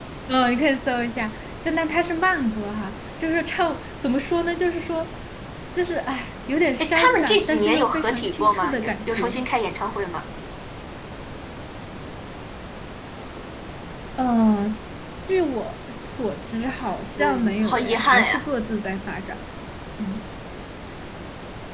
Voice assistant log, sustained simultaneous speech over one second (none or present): present